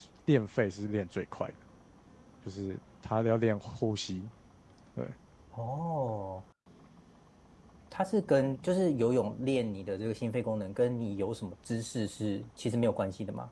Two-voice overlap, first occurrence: none

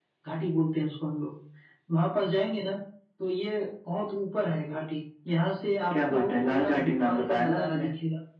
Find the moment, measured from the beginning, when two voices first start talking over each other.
5.9 s

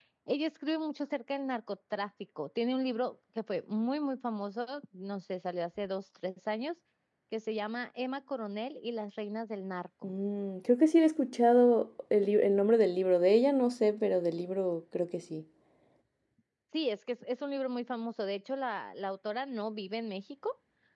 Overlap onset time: none

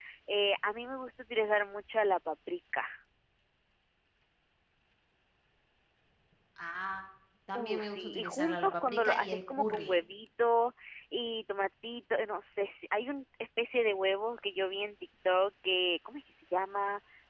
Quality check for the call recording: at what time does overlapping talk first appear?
7.5 s

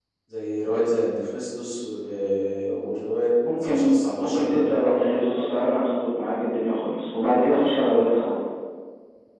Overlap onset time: 3.6 s

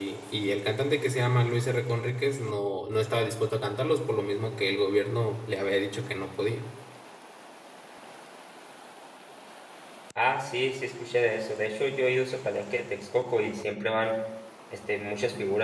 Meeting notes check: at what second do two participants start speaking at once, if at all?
none

